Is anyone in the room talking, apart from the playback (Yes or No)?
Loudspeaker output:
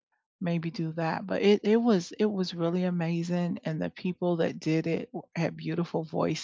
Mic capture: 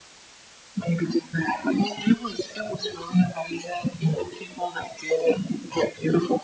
No